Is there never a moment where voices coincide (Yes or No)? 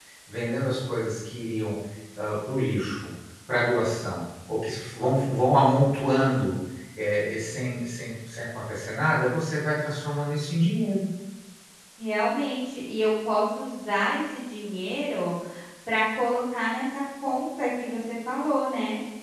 Yes